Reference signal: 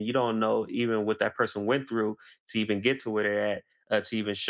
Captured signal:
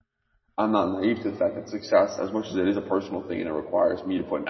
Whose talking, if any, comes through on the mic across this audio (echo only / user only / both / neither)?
user only